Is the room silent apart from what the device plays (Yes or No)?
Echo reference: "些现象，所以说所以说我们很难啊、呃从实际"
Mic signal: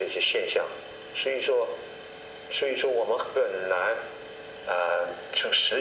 Yes